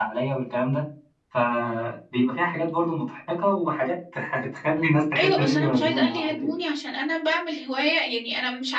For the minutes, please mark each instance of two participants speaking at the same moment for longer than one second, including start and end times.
5.2-6.5

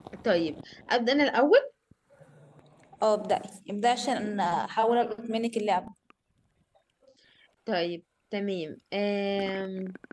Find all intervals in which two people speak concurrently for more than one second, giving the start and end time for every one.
none

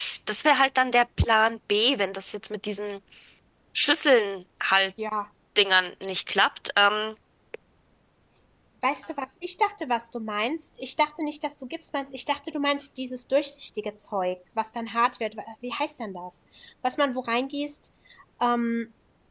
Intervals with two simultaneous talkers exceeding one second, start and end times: none

